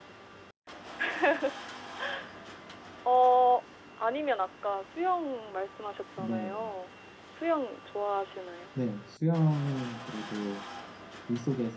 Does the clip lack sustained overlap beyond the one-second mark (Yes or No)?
Yes